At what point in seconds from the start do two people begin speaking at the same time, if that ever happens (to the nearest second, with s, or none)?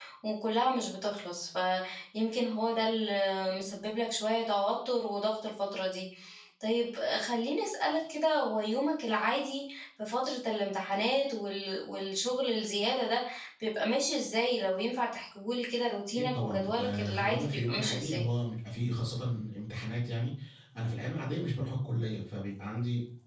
16 s